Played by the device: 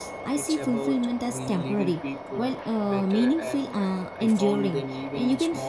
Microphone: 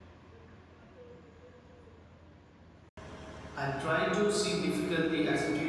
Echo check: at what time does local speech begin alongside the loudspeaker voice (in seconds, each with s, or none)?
3.5 s